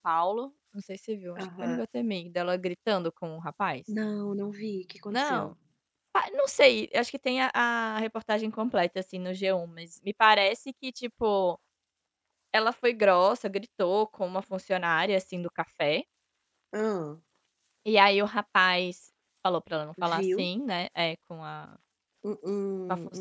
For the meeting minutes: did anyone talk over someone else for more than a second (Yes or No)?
No